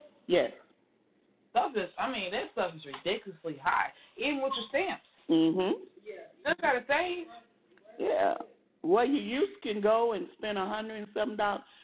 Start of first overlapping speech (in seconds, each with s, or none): none